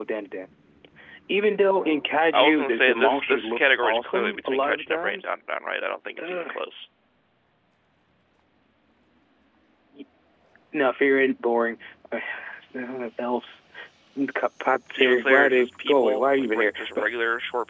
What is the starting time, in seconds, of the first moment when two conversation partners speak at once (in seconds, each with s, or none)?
2.3 s